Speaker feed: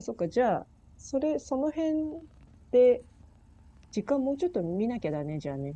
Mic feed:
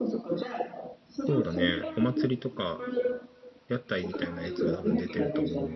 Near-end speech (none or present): present